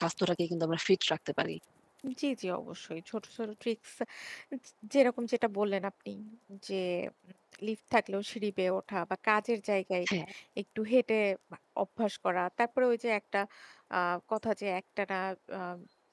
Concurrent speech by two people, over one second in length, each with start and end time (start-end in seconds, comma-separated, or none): none